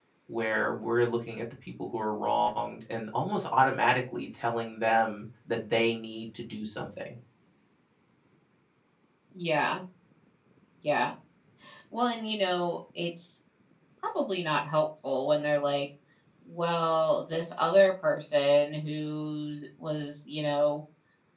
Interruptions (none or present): none